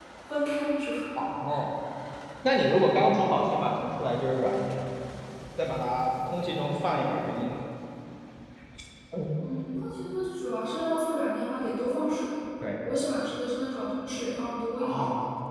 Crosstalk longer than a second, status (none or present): none